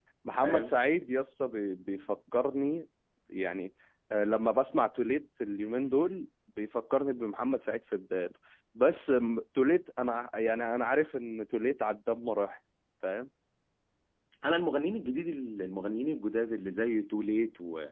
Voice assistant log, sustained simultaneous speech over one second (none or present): none